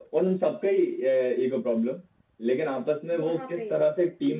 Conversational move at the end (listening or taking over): listening